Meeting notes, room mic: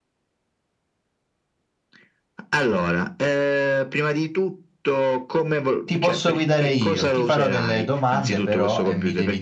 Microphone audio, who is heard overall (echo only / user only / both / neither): both